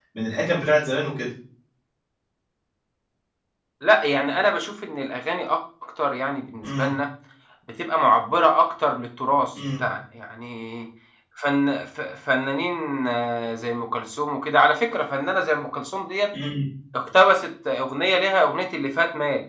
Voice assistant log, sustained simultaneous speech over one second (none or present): none